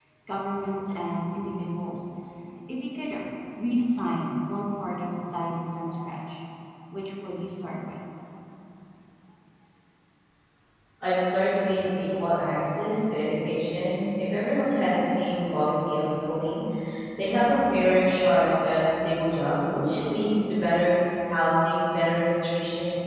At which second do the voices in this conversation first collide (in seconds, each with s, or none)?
none